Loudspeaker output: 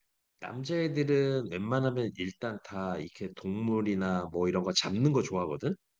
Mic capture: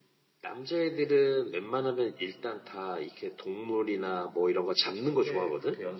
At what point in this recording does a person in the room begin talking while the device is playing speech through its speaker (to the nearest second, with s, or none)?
5 s